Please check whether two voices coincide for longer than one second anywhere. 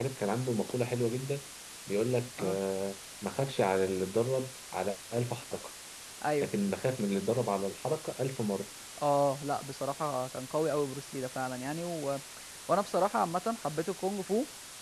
No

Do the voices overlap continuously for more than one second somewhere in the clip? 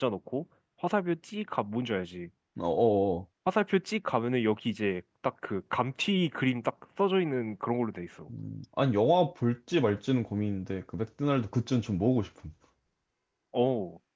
No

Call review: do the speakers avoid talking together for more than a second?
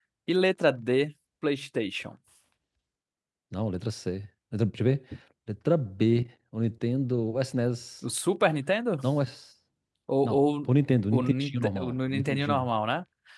No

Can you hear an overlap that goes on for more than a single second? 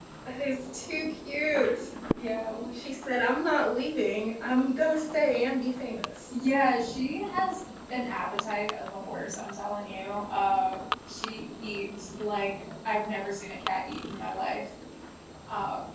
No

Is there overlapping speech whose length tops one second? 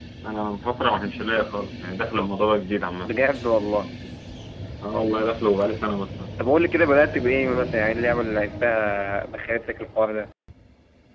No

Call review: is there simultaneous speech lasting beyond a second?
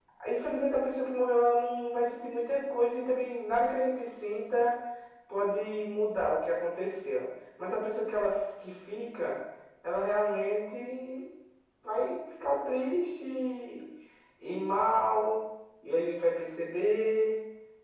No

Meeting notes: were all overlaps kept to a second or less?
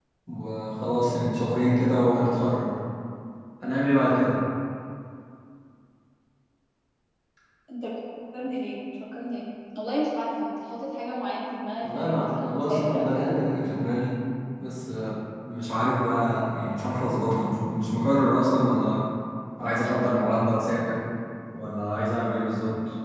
No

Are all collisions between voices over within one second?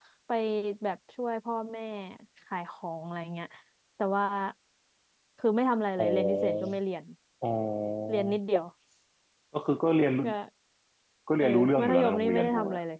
No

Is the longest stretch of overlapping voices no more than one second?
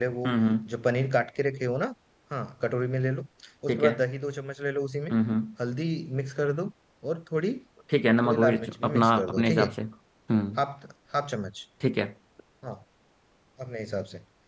No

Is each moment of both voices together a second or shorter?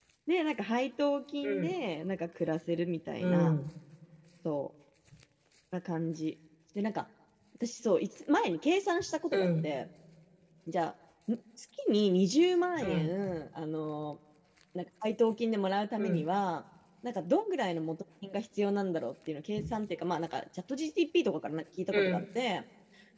Yes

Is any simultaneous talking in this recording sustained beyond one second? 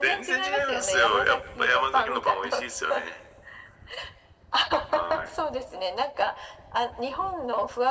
Yes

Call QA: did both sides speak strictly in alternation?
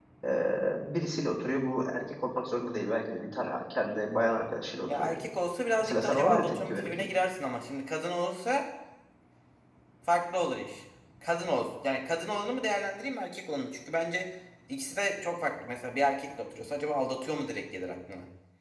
No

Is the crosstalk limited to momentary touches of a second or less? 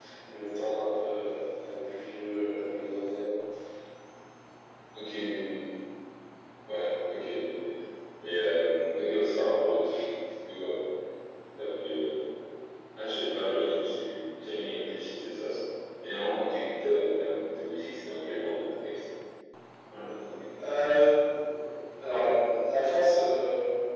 Yes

